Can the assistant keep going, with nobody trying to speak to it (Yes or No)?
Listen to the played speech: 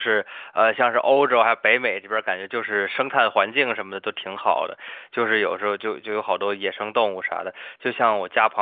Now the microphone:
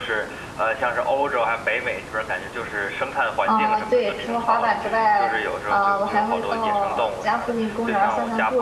No